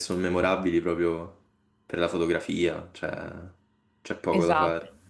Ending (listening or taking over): taking over